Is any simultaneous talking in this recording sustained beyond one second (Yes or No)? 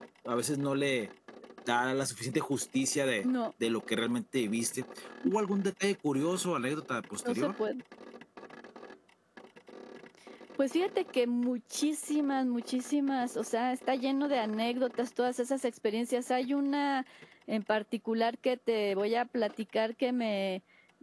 No